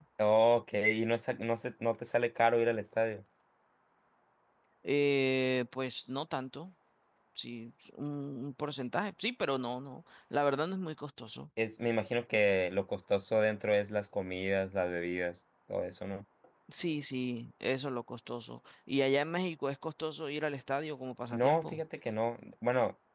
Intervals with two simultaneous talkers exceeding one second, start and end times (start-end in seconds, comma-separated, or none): none